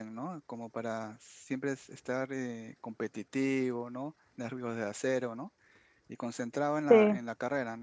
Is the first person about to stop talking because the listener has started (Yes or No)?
No